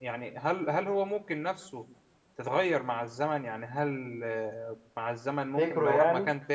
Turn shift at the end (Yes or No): No